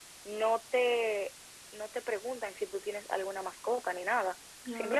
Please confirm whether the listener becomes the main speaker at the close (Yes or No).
No